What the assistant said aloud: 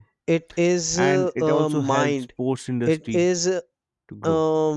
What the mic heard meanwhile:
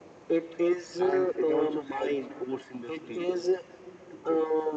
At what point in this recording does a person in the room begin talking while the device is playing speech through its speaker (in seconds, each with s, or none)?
none